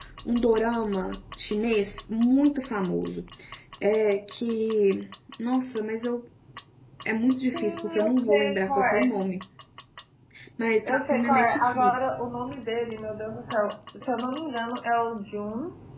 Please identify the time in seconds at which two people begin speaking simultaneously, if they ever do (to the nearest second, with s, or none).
8 s